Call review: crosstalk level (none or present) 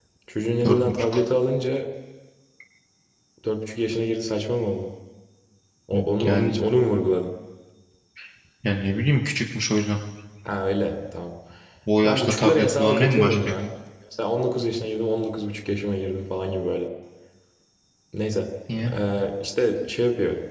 present